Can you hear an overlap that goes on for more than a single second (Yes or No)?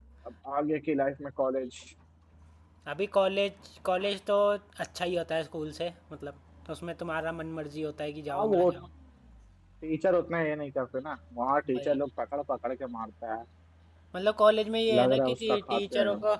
Yes